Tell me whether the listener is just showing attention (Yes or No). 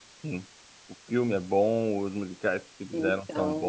Yes